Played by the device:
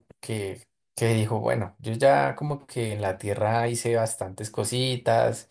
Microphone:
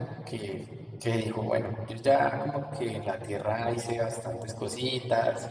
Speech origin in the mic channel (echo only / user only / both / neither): echo only